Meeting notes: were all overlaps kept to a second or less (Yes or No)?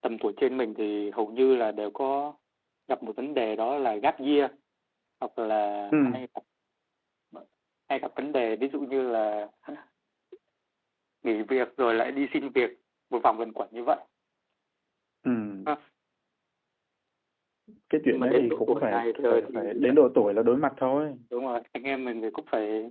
No